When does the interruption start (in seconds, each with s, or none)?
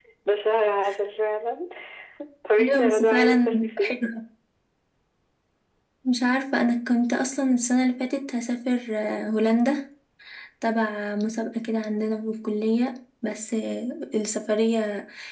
2.6 s